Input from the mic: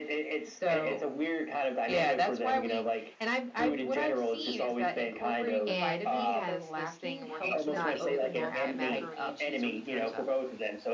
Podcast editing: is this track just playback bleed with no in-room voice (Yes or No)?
No